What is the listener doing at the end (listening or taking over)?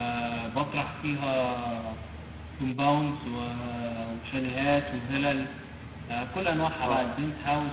listening